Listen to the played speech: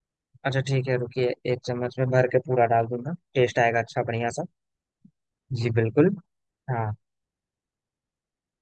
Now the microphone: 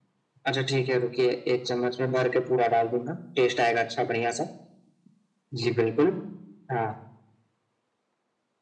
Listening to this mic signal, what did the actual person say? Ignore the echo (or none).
none